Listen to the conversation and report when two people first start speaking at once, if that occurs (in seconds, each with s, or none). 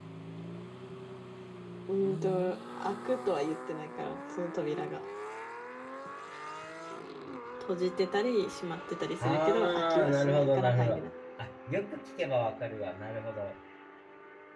9.2 s